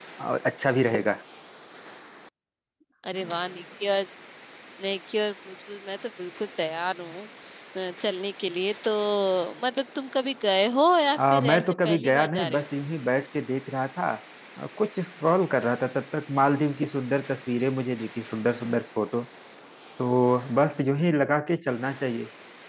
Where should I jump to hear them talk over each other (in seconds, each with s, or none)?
11.2 s